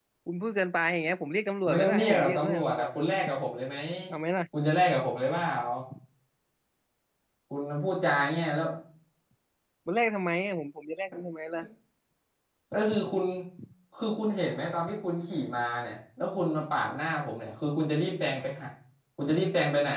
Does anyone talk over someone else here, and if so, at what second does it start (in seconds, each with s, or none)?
1.6 s